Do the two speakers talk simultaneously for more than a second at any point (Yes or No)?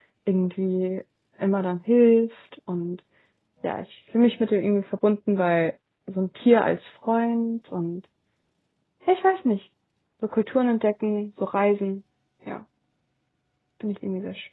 No